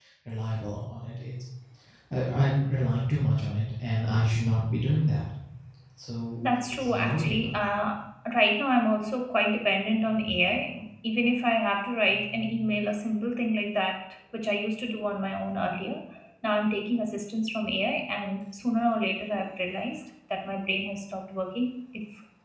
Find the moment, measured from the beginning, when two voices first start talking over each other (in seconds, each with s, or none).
6.5 s